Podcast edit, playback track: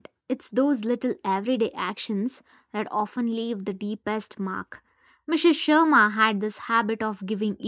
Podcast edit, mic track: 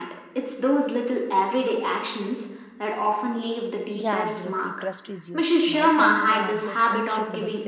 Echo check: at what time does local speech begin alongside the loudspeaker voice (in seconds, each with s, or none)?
3.9 s